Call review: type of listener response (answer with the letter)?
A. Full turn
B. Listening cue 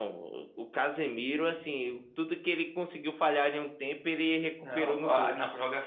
A